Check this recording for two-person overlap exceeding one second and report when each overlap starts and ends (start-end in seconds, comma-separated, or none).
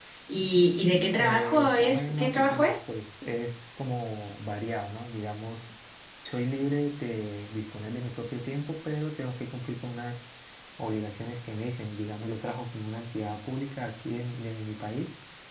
1.2-2.7